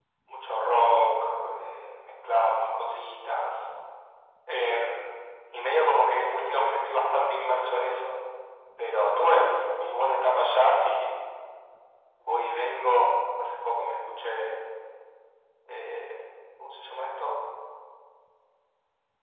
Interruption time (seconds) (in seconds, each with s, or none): none